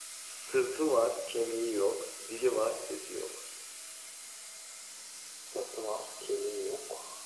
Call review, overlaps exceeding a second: none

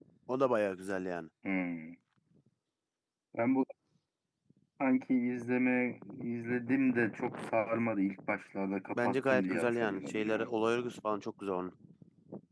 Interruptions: present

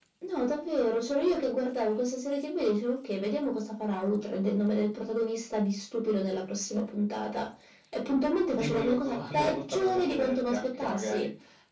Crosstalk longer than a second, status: present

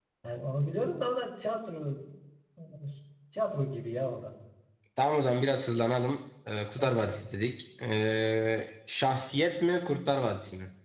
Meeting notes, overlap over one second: none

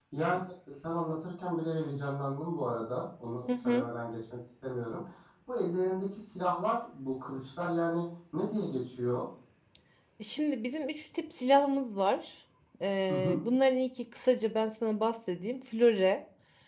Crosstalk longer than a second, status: none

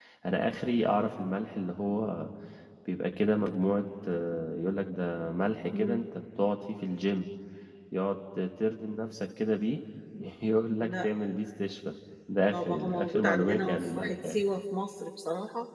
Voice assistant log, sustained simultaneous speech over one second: present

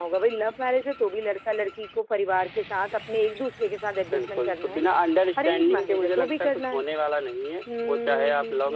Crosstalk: present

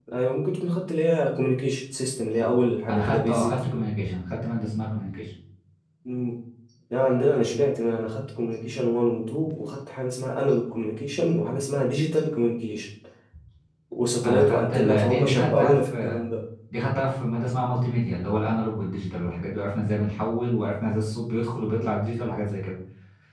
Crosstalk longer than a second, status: present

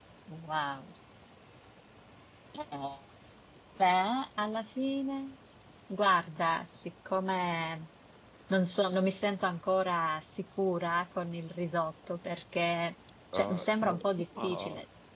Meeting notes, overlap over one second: present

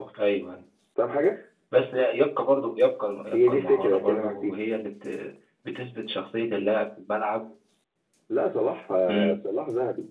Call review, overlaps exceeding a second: present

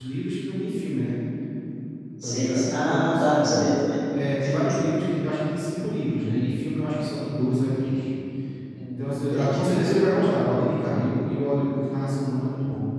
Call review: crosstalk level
present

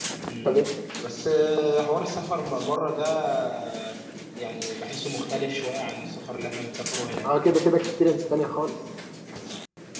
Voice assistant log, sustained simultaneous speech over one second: none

